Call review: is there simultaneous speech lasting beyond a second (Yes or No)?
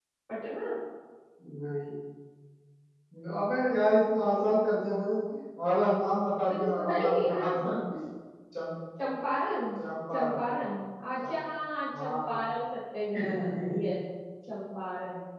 Yes